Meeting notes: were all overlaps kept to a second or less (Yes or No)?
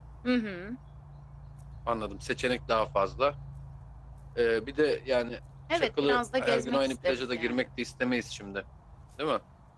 No